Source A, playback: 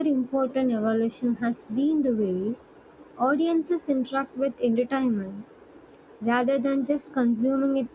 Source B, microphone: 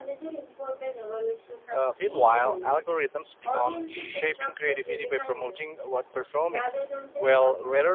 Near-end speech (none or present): present